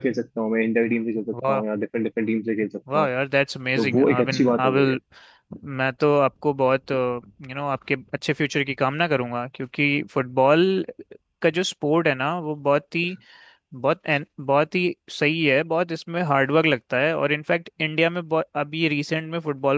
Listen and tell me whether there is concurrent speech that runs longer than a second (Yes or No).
Yes